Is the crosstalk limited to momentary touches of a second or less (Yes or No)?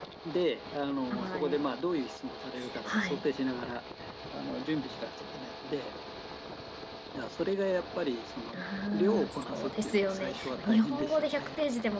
No